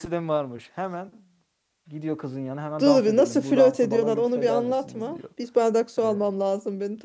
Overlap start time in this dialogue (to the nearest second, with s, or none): 3 s